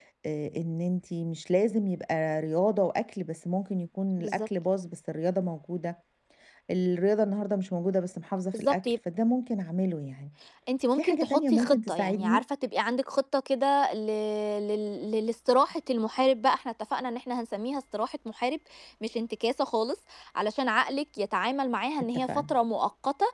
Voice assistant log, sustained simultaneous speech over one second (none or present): present